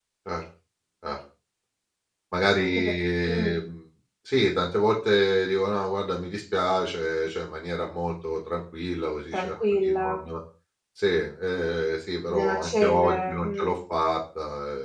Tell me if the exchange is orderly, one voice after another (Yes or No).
No